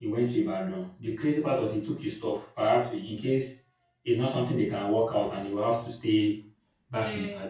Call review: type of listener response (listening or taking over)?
listening